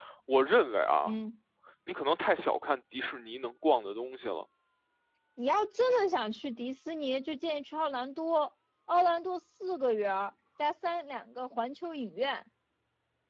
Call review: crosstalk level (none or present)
none